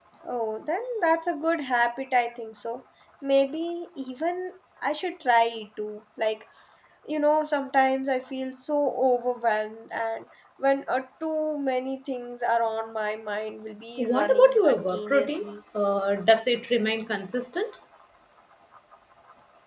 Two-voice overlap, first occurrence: 14.0 s

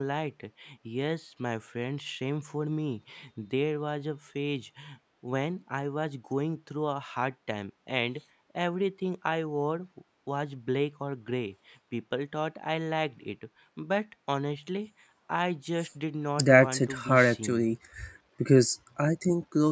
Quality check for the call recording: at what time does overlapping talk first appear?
16.4 s

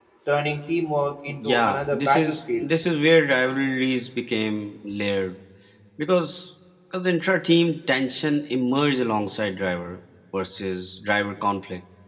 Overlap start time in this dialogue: 1.3 s

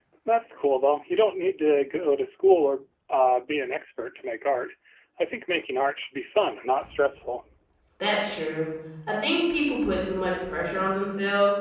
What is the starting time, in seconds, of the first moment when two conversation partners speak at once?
none

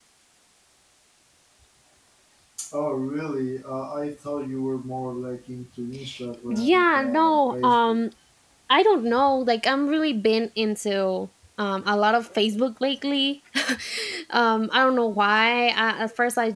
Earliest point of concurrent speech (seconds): 6.5 s

